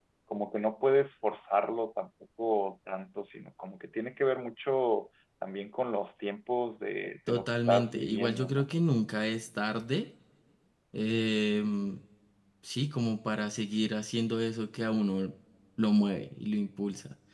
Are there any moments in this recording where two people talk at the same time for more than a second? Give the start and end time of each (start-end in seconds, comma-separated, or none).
7.3-8.7